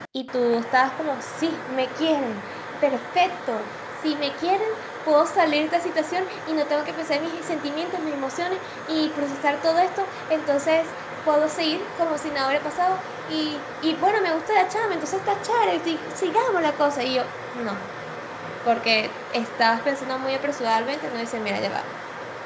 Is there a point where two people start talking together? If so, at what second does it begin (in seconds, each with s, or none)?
none